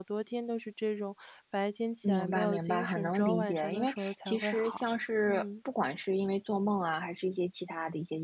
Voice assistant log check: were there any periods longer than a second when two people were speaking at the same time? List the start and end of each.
2.0-4.8

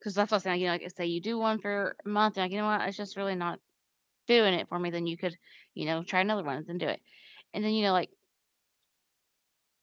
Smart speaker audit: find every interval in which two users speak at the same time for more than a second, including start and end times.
none

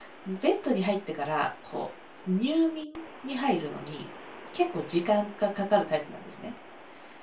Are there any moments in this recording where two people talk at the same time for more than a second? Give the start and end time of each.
none

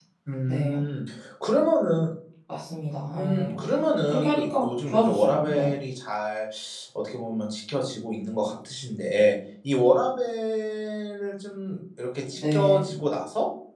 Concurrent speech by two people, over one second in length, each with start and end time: 4.1-5.8

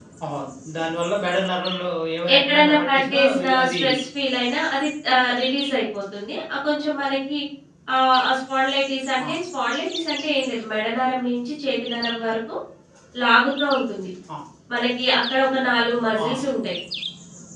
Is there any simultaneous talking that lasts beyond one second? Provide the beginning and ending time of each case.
2.4-3.8

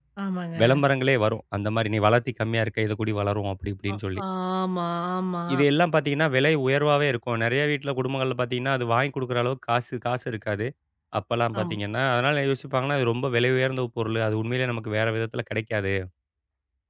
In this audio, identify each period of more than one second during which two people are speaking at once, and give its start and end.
none

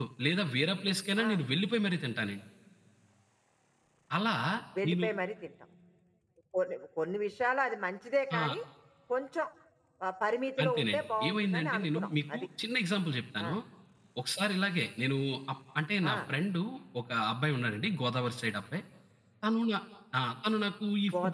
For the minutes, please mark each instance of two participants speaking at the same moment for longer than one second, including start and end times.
10.6-12.4

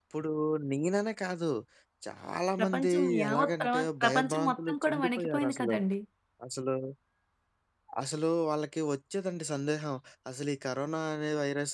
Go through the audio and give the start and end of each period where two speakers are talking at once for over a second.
2.6-5.8

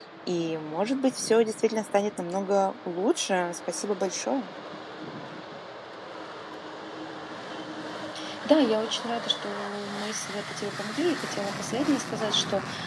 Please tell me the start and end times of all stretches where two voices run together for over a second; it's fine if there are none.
none

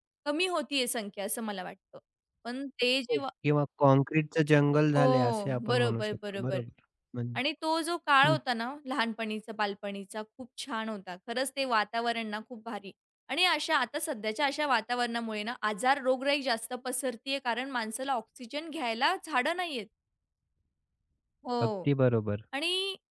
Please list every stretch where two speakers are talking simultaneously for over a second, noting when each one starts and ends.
5.0-6.6

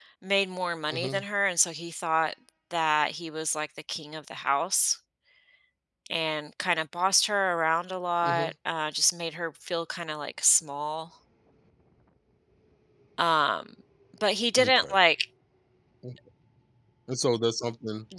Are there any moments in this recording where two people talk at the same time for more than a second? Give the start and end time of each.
none

